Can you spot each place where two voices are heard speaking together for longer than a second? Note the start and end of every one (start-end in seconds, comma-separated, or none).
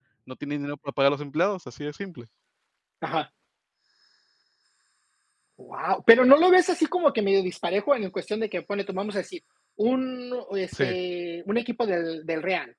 none